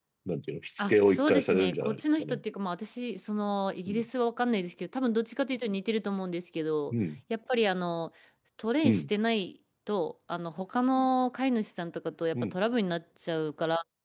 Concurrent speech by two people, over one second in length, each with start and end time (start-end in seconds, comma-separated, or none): 0.9-2.4